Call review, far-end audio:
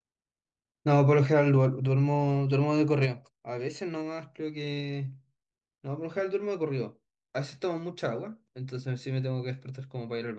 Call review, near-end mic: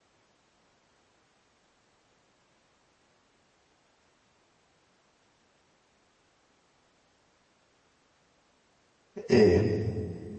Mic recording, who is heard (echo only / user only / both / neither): user only